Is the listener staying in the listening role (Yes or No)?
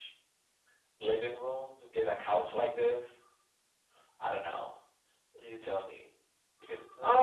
No